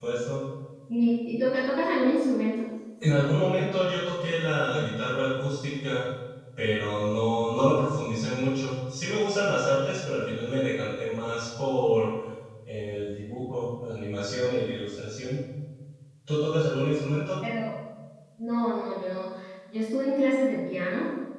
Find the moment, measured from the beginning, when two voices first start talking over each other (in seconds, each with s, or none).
none